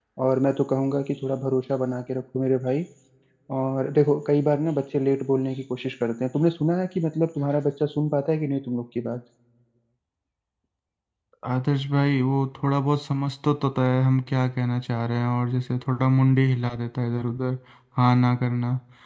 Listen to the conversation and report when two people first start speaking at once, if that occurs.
none

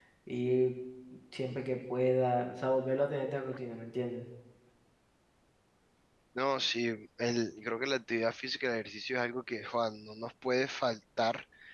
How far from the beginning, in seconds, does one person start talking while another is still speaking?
none

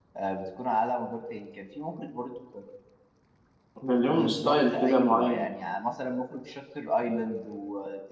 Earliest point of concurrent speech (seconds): 4.1 s

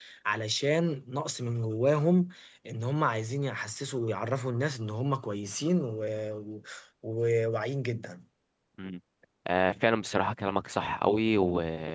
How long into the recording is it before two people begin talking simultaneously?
none

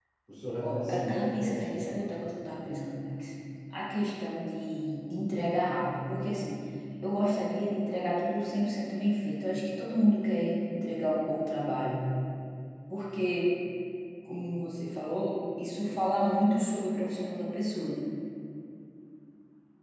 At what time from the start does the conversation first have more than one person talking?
0.6 s

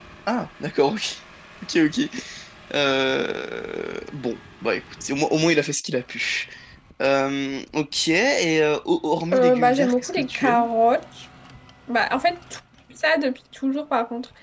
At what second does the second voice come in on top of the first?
9.3 s

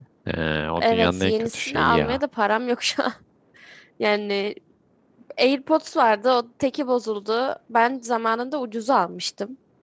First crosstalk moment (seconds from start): 0.8 s

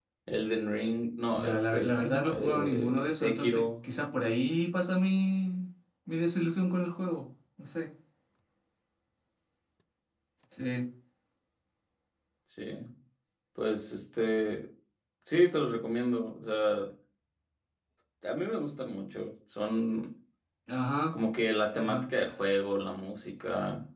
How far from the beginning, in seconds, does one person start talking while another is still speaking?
1.3 s

